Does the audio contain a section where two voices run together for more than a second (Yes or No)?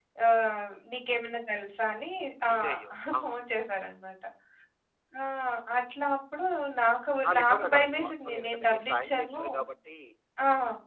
Yes